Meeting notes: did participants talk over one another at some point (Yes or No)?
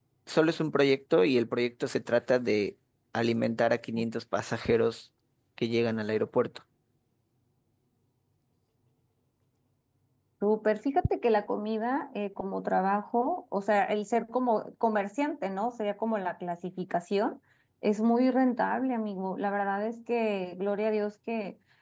No